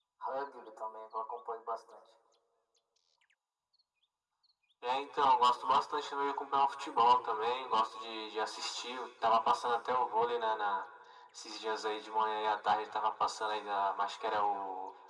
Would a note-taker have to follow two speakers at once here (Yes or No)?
No